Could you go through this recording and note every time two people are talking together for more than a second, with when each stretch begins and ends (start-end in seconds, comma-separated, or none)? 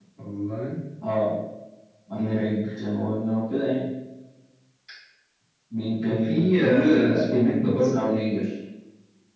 6.0-8.2